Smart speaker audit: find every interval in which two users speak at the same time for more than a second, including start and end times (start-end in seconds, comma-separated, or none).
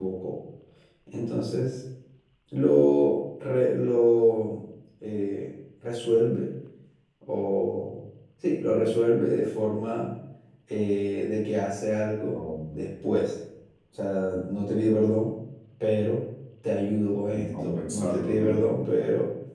17.3-18.8